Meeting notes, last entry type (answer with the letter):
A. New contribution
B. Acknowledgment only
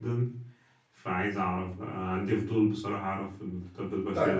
A